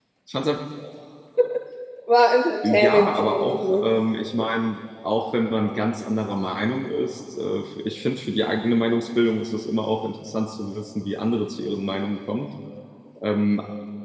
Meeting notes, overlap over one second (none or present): present